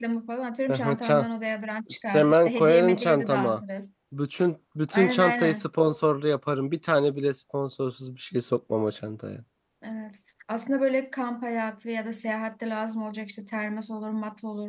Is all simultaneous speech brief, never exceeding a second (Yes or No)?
No